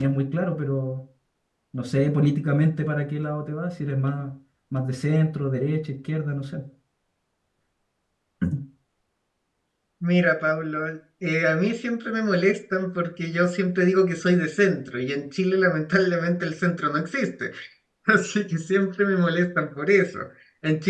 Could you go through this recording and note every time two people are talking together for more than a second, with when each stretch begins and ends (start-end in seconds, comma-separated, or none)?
none